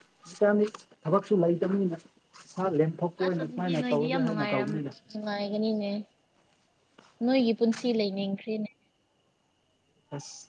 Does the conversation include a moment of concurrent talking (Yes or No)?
Yes